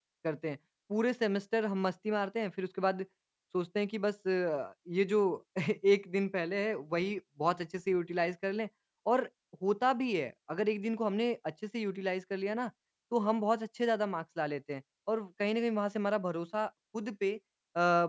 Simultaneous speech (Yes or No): No